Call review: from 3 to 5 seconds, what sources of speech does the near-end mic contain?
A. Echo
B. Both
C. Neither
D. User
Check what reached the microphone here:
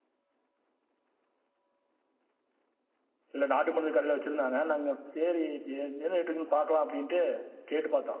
D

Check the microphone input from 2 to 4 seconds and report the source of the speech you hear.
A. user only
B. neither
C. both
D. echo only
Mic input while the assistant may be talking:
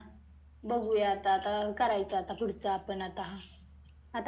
D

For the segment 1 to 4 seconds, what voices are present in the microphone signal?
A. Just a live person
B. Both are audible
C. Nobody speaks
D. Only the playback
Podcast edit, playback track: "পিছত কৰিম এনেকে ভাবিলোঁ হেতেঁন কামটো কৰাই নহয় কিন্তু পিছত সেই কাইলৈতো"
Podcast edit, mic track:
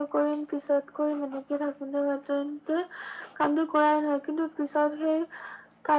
D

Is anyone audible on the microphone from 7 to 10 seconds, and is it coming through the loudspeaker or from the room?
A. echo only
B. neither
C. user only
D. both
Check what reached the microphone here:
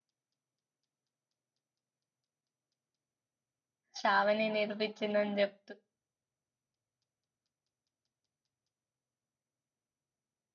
B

